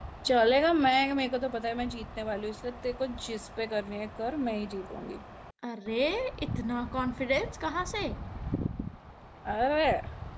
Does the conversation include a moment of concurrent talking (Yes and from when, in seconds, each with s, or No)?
No